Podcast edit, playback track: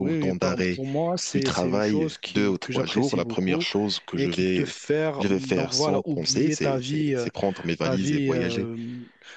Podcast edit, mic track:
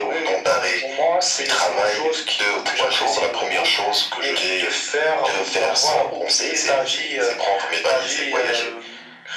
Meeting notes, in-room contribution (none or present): none